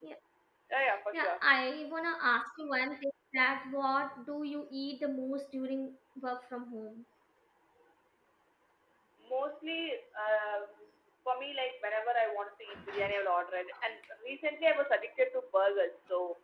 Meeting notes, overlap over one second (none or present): none